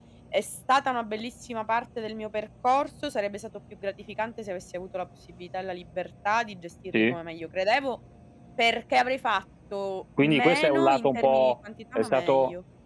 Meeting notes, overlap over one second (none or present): present